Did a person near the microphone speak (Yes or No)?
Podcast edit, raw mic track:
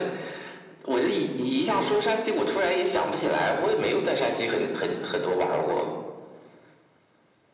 No